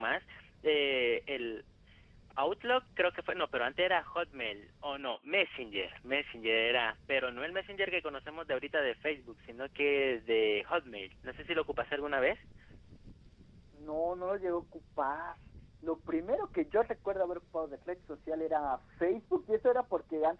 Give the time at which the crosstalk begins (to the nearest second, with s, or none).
none